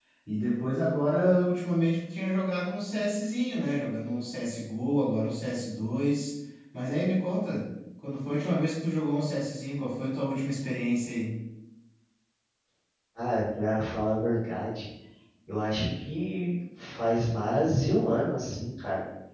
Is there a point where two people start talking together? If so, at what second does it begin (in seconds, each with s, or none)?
none